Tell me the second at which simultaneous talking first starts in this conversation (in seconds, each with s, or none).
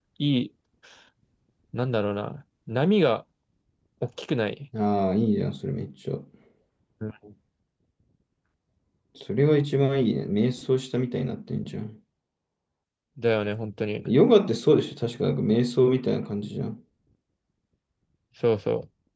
none